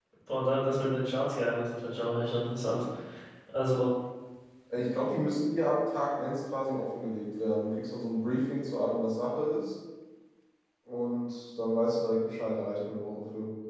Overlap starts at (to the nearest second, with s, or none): none